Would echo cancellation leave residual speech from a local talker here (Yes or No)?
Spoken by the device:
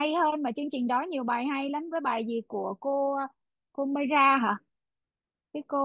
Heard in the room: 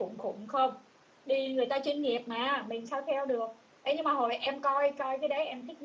Yes